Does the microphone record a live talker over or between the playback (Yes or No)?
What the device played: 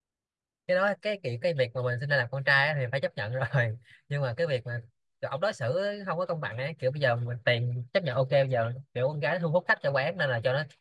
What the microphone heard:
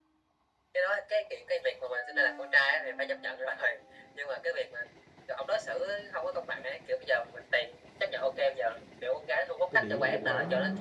Yes